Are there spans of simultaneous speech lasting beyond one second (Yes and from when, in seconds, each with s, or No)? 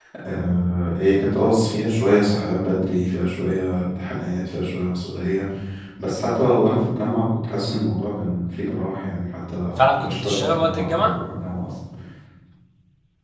Yes, from 9.8 s